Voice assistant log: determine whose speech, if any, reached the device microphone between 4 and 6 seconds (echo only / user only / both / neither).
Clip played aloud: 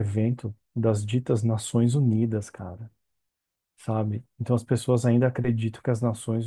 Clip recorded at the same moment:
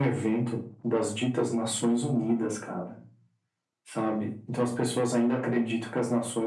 echo only